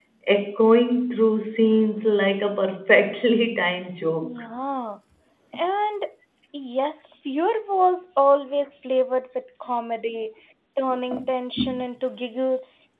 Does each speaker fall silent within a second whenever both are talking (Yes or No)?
Yes